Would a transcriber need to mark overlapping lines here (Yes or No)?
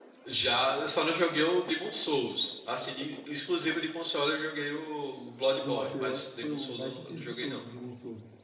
Yes